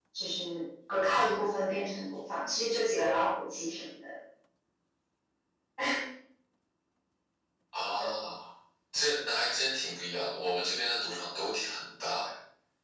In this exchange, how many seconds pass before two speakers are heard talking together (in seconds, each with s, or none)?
none